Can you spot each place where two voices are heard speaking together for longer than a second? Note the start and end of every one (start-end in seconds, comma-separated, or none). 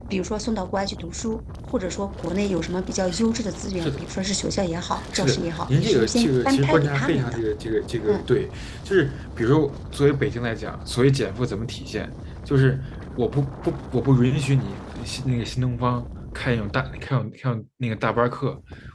5.1-7.4